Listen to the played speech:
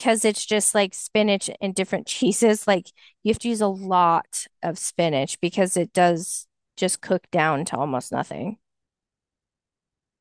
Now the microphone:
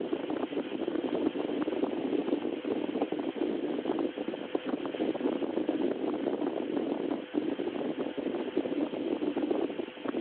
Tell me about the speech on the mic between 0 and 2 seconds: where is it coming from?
neither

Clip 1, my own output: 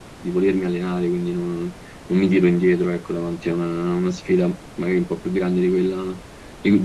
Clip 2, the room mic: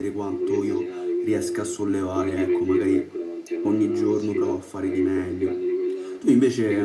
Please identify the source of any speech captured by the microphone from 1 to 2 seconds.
both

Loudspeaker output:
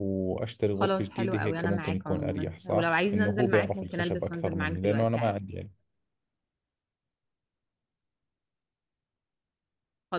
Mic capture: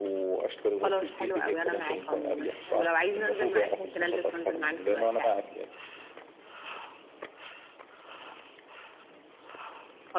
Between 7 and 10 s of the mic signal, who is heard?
neither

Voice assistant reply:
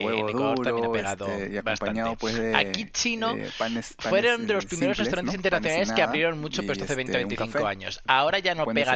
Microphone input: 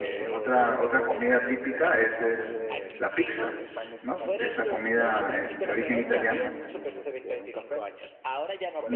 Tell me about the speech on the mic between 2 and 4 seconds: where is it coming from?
both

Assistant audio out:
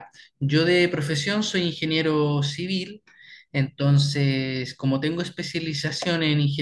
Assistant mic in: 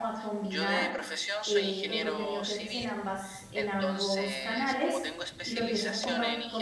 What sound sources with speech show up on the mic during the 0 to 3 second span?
both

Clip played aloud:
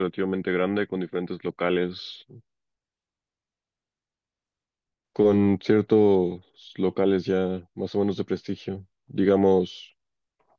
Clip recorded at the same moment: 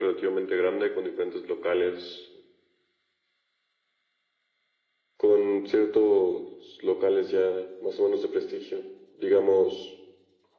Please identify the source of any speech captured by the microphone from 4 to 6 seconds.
echo only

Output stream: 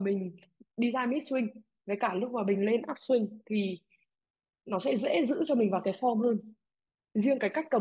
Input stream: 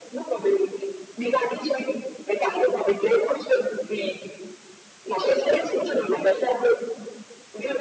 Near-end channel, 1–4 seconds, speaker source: echo only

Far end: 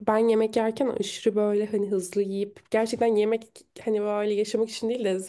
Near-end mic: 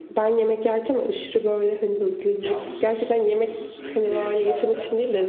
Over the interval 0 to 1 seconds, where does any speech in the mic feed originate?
echo only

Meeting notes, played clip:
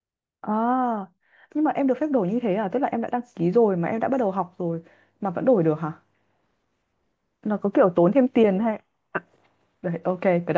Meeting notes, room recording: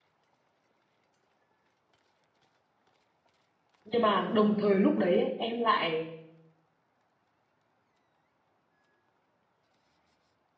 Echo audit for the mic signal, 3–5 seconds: user only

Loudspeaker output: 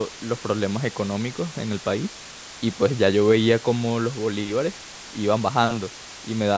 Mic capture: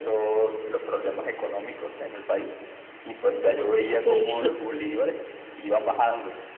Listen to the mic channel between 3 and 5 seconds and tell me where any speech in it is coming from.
both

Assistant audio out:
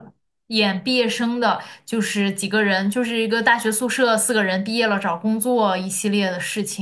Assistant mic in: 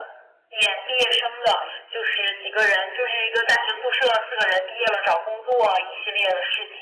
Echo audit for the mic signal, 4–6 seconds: echo only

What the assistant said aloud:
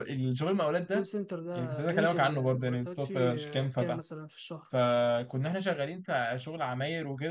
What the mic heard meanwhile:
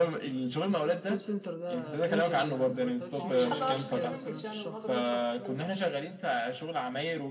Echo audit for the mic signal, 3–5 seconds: both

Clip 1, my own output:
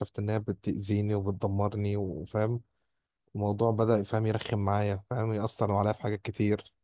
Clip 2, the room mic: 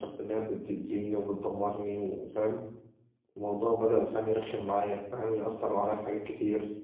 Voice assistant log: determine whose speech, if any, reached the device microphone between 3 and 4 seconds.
echo only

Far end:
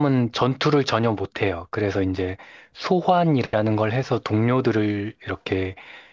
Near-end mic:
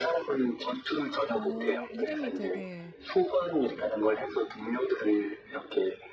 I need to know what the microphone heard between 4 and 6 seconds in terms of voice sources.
echo only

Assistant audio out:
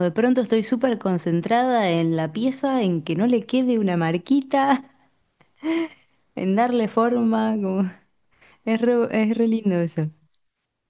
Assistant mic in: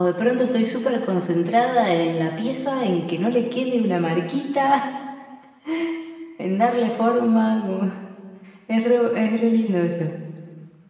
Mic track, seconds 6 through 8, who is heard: echo only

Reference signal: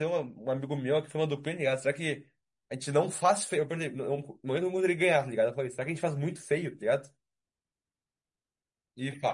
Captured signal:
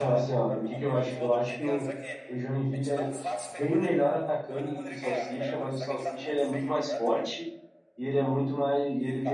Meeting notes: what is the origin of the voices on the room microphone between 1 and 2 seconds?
both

